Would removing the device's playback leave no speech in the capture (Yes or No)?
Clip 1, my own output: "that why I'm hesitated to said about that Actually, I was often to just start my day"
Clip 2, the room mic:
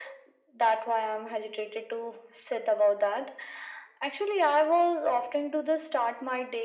Yes